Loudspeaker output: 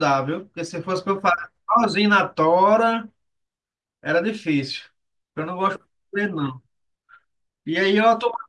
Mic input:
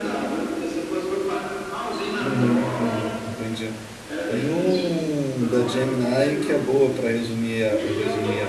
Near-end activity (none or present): present